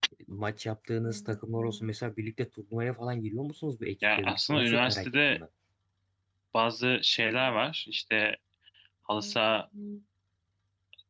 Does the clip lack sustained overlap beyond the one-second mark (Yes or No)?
No